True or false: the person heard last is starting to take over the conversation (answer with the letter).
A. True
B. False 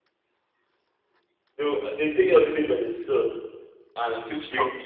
B